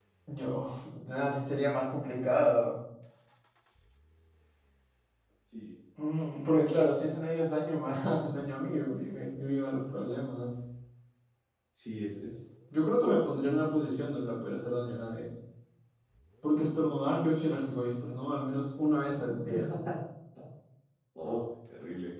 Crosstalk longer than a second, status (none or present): none